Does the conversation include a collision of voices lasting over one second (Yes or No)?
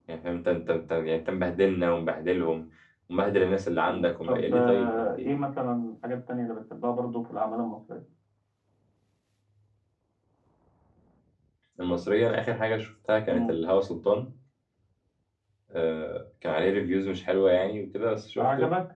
Yes